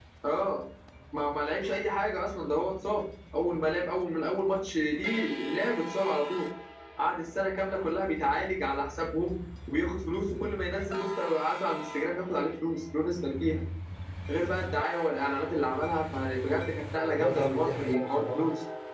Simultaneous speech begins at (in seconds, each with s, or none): 17.0 s